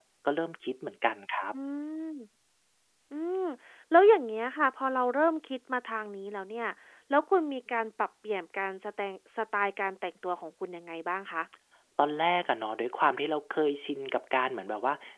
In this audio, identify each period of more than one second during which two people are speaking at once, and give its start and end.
none

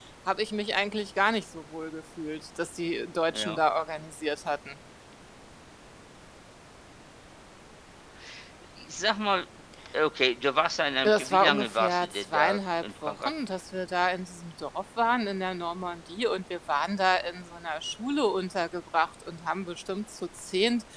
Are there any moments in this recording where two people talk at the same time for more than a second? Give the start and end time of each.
11.0-13.3

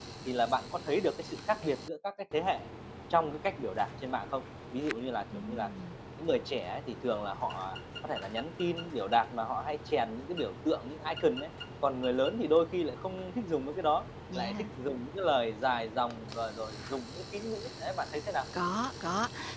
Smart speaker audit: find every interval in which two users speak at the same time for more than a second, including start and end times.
none

